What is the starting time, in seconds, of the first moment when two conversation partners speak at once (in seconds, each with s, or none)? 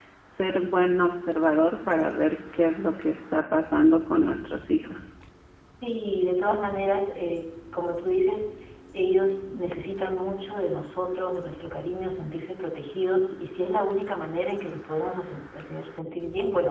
none